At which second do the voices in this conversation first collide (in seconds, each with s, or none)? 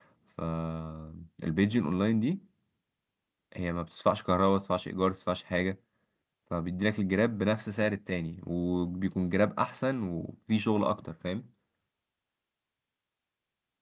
none